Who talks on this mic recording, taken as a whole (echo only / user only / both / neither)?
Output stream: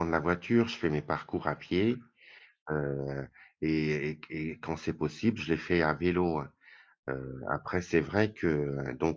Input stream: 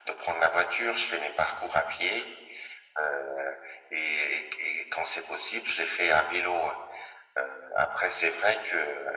echo only